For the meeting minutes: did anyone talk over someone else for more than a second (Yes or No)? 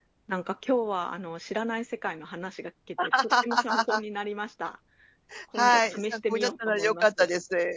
Yes